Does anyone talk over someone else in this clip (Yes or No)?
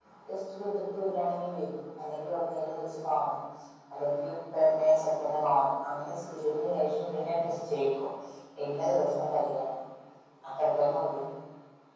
No